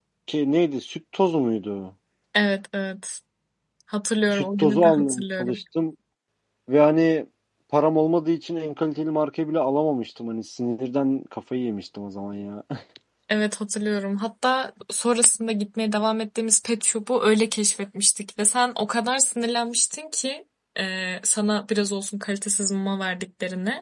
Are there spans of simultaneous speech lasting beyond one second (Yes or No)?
Yes